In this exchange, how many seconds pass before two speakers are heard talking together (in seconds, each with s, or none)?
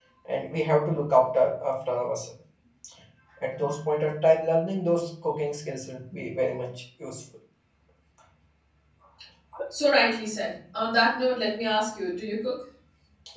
none